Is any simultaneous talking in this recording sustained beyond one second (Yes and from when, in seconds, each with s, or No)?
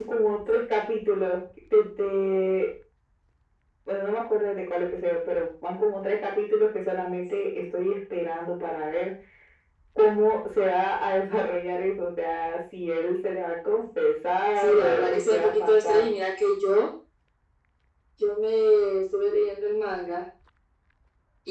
Yes, from 14.6 s